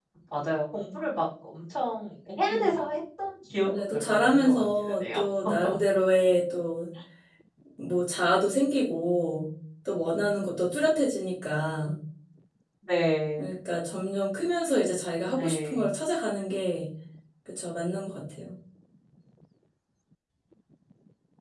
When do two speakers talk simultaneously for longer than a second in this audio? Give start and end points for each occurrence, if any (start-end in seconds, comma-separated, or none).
3.6-5.2